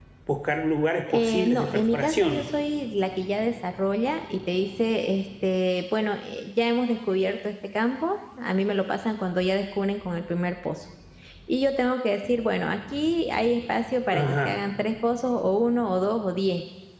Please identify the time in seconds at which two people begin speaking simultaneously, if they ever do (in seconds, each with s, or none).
1.1 s